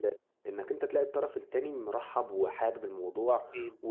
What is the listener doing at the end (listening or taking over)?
listening